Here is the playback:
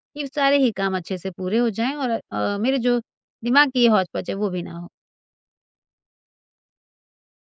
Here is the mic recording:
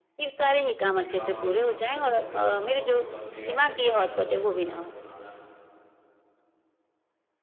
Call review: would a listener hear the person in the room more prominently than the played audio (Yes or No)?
No